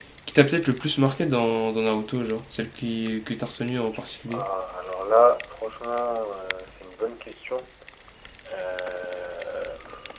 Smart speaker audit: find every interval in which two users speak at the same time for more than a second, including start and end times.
none

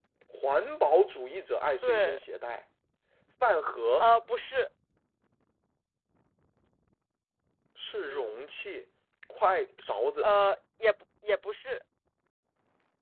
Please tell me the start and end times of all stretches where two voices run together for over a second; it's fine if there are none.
none

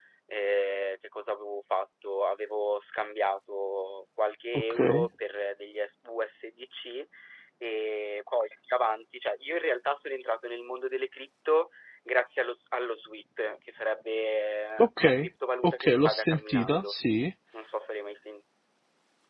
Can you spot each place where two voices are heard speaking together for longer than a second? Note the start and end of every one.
15.6-16.9

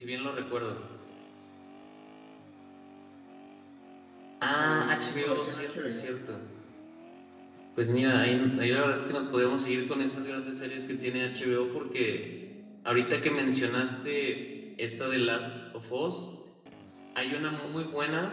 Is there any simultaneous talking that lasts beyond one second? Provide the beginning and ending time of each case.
4.6-6.0

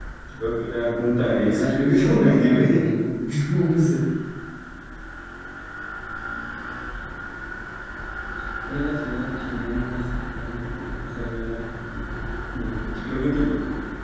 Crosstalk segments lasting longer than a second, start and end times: 1.4-3.0

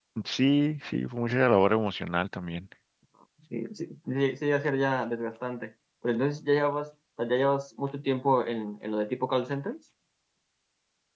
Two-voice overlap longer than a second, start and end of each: none

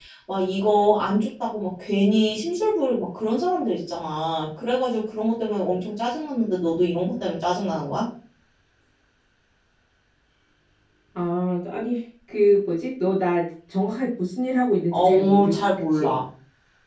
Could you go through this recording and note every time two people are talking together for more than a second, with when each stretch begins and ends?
14.9-16.2

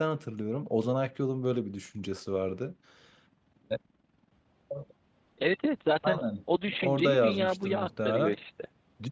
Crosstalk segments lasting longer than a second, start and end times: 6.8-8.3

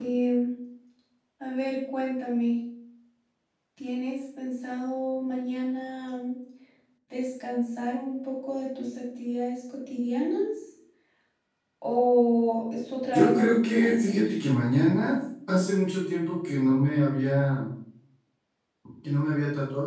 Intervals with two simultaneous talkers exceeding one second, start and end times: 13.1-14.3

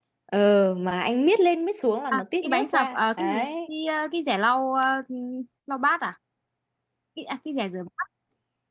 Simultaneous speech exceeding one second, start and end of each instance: 2.1-3.5

